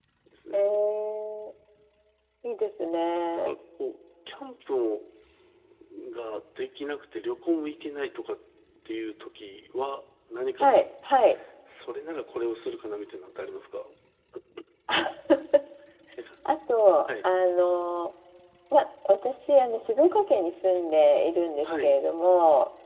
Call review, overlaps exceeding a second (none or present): none